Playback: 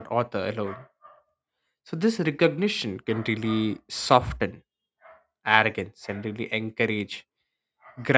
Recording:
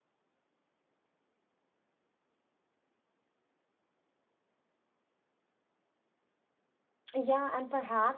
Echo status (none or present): none